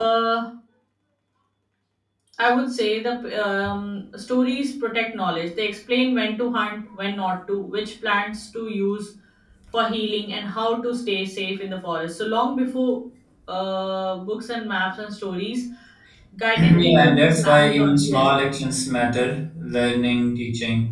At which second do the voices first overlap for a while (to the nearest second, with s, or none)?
17 s